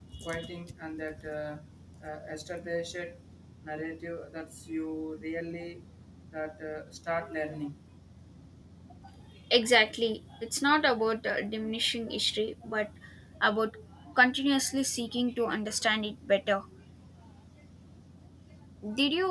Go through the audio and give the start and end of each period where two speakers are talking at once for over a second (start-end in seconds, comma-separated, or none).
none